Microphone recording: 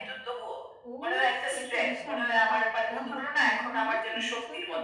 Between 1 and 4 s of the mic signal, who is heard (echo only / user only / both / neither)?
both